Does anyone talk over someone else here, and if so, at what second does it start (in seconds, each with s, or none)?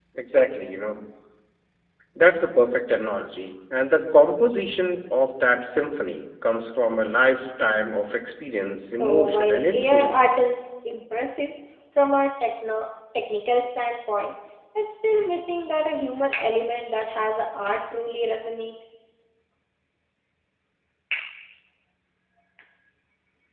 8.9 s